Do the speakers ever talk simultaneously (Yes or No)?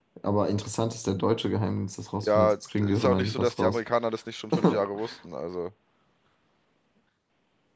Yes